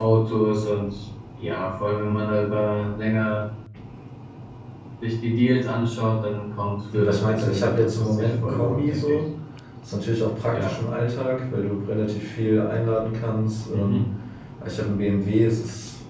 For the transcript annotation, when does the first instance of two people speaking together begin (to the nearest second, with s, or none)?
7 s